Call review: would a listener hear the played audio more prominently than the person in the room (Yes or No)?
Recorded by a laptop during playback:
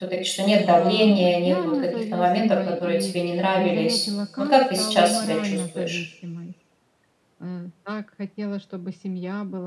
No